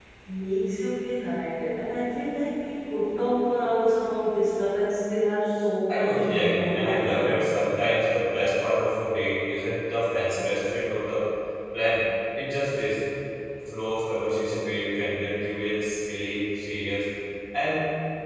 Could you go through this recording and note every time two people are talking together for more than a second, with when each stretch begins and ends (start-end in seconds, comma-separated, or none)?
5.9-7.5